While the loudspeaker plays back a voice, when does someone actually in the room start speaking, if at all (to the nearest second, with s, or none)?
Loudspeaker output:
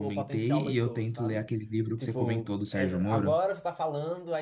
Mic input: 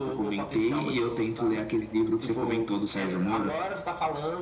none